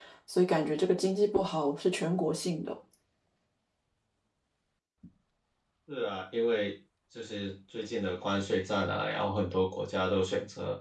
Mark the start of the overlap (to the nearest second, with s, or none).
none